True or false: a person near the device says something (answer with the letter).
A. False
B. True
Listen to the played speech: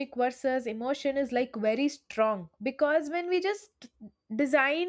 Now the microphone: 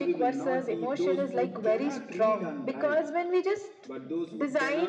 B